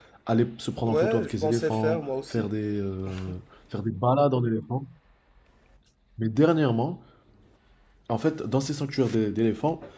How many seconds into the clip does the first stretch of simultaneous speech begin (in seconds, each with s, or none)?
0.8 s